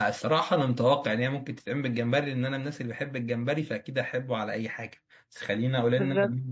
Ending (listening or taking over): listening